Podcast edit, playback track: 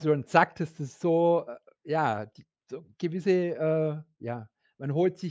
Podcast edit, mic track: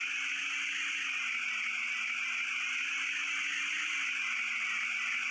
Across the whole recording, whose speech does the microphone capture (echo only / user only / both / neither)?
neither